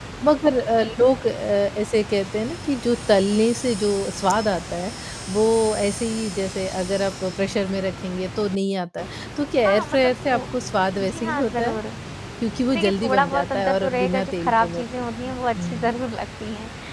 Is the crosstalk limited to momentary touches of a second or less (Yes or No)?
No